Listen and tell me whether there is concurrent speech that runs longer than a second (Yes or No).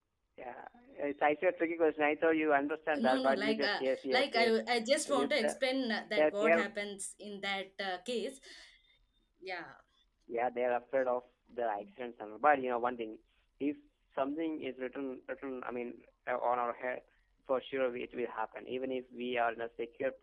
Yes